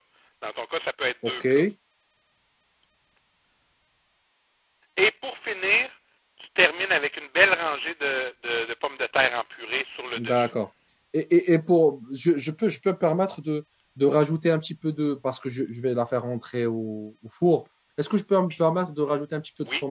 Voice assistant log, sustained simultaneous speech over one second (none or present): none